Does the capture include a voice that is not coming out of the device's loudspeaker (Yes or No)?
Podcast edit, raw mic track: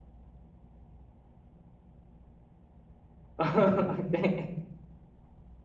Yes